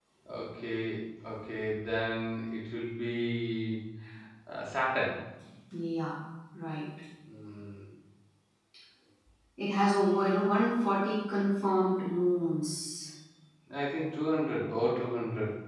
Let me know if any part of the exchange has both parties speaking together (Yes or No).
No